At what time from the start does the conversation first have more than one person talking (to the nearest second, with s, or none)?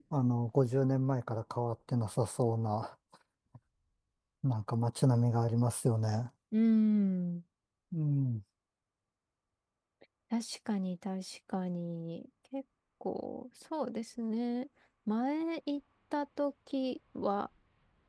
none